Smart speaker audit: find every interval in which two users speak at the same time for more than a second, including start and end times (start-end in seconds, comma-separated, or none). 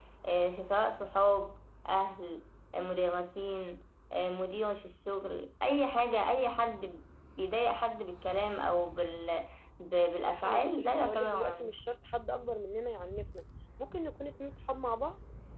10.2-11.8